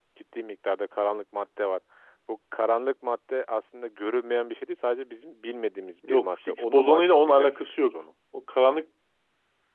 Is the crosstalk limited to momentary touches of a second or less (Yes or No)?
No